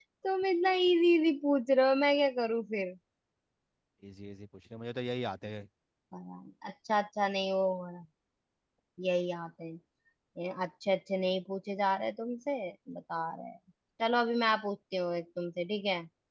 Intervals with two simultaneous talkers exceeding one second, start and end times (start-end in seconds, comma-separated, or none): none